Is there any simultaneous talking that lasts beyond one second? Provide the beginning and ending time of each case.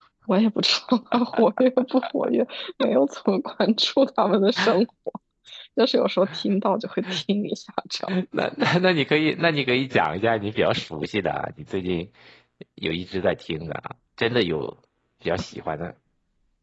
none

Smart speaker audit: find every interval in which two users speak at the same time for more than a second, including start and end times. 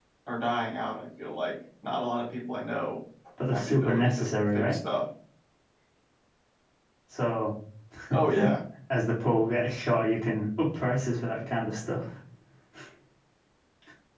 3.5-4.8

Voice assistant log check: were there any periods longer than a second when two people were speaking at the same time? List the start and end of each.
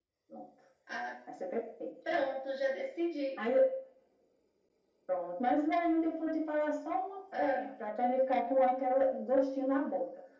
none

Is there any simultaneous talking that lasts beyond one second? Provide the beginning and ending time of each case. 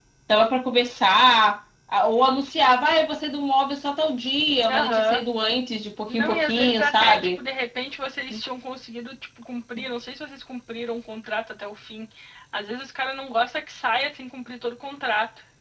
6.1-7.4

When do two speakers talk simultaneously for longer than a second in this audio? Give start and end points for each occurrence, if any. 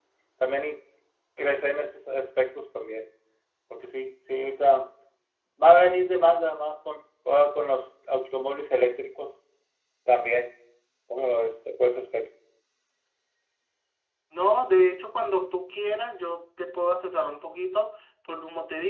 none

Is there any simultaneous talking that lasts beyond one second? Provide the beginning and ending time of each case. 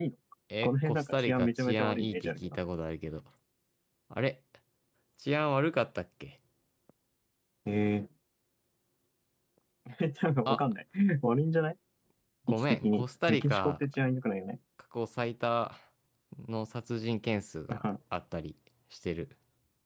0.6-2.6, 12.5-13.8

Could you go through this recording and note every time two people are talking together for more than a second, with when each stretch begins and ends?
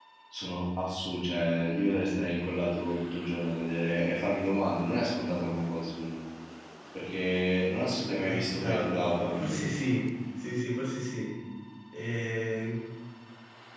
8.2-9.6

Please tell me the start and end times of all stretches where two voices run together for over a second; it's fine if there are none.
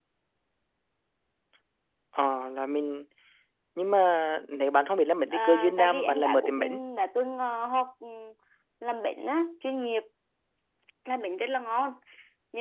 5.3-6.8

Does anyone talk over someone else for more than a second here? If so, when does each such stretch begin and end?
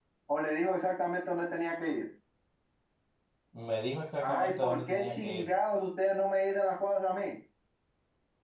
4.2-5.4

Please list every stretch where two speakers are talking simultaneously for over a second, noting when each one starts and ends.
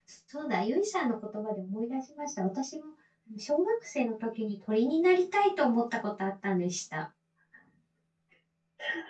none

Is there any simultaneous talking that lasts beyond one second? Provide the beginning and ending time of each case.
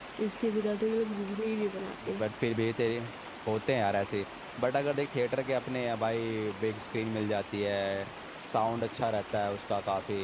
none

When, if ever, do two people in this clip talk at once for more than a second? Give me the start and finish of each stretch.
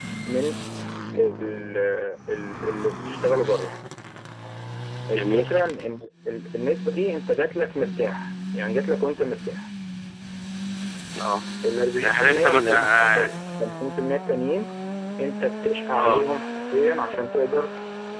12.0-13.3

